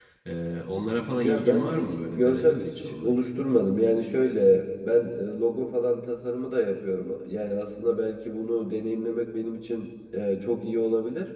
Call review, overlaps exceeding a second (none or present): present